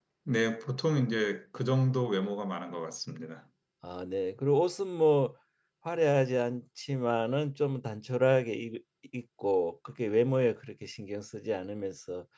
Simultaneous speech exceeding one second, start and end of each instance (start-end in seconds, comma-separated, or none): none